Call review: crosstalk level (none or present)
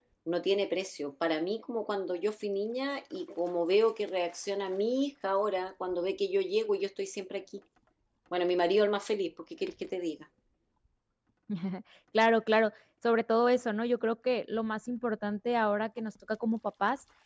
none